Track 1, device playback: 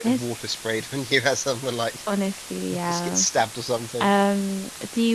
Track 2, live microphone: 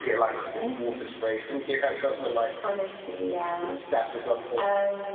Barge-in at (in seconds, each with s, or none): none